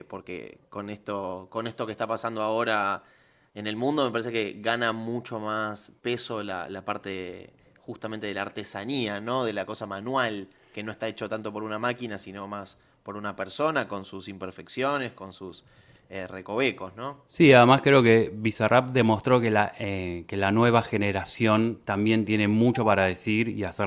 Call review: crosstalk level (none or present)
none